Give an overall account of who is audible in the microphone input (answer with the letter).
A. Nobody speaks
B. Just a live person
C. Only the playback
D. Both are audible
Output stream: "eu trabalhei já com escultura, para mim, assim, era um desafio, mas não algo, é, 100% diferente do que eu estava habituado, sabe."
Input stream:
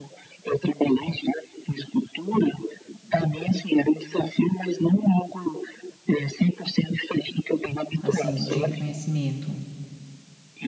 D